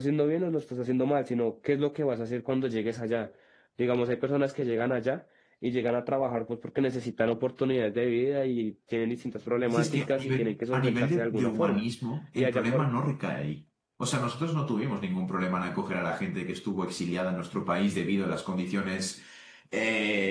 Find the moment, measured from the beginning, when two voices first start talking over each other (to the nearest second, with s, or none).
10 s